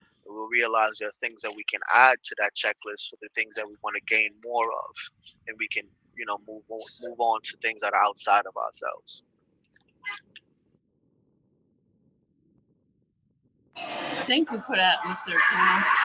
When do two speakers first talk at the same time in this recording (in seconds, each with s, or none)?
none